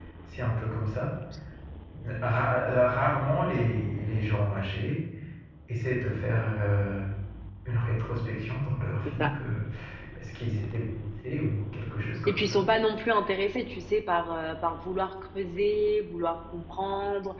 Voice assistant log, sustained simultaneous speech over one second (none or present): none